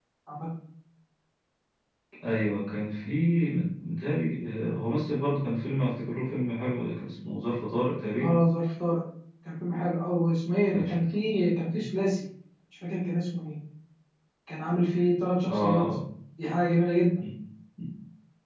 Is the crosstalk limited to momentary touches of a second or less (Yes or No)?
Yes